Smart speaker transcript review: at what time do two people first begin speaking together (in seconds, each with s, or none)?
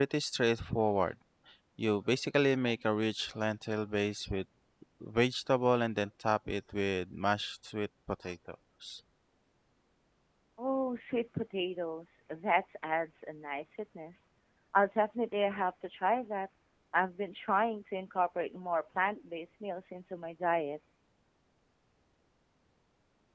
none